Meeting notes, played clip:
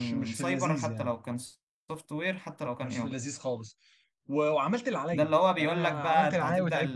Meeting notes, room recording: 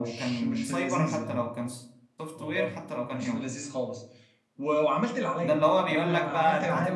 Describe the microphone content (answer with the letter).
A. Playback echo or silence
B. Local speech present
B